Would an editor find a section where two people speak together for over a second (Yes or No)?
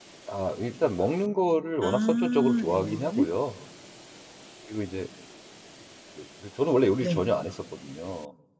Yes